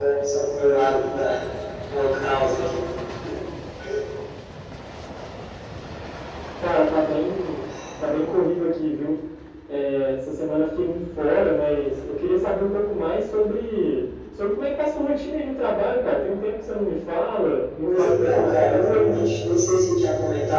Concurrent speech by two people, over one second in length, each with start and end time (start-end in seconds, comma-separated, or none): 17.8-19.2